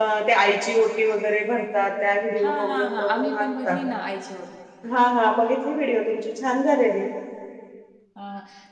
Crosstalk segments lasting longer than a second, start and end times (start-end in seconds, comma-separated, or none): 2.4-3.8